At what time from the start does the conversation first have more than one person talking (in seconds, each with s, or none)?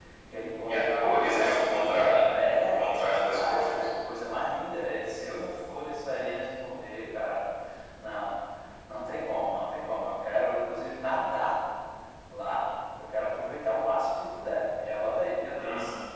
0.7 s